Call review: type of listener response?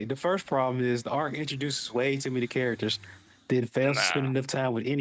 listening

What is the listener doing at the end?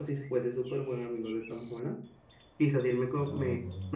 listening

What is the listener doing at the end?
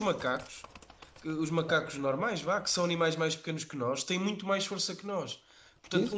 listening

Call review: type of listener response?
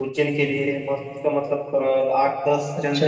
taking over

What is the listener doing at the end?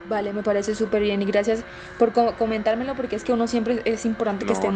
taking over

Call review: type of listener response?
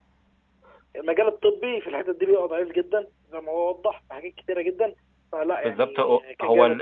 taking over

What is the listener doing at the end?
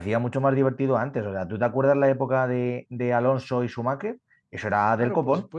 taking over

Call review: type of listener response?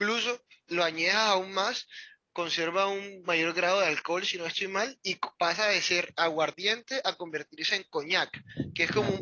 listening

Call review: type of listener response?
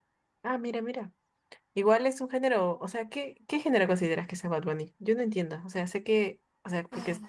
listening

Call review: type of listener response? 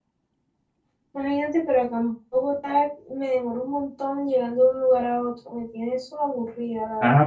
taking over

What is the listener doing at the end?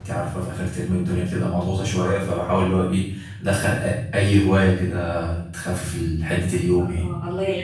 taking over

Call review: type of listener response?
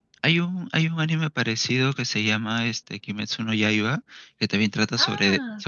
listening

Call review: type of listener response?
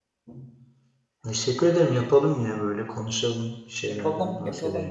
taking over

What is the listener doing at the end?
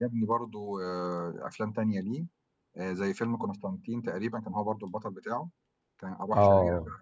taking over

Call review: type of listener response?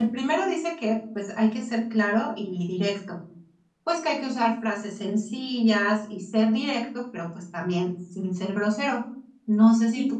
listening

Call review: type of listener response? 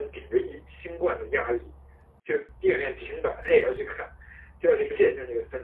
listening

